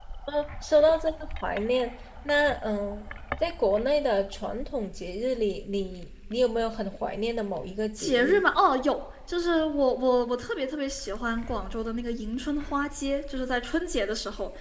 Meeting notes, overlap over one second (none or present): none